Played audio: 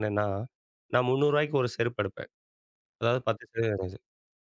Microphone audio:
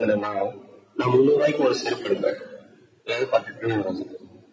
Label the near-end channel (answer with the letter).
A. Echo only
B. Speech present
A